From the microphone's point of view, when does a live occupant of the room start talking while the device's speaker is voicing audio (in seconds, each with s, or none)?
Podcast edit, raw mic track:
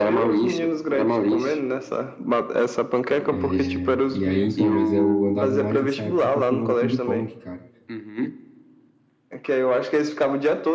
3.3 s